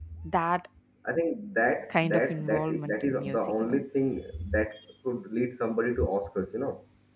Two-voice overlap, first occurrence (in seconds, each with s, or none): 2.1 s